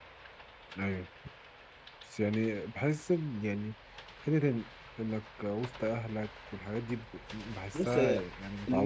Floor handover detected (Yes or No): Yes